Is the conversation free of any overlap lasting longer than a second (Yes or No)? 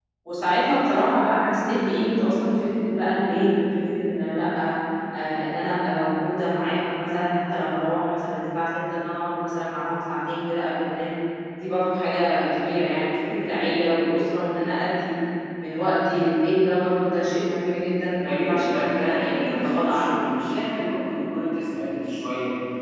No